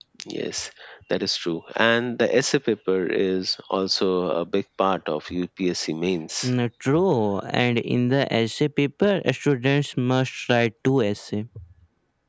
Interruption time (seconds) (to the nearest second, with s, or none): none